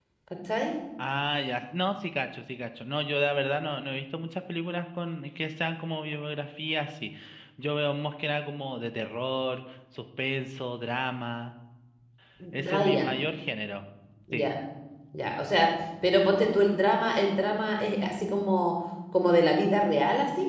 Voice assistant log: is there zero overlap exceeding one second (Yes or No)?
Yes